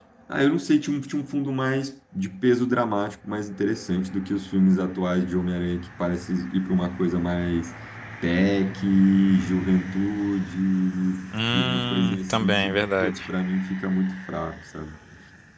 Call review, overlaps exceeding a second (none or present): present